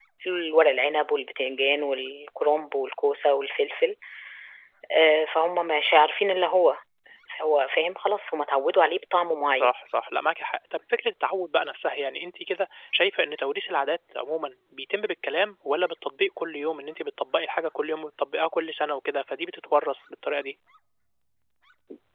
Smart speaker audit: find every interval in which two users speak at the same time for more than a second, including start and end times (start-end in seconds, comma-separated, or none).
none